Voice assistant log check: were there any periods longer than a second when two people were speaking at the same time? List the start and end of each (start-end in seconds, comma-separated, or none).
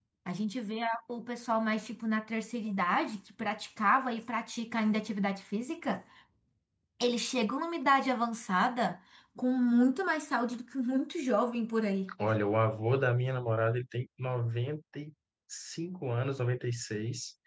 none